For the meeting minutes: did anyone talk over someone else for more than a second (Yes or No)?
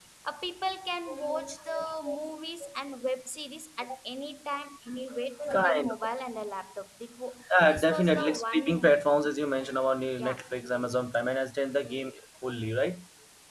Yes